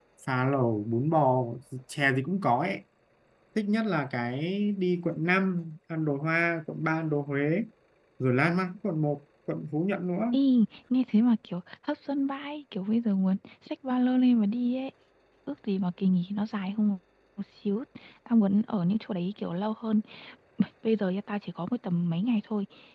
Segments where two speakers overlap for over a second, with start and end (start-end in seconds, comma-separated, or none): none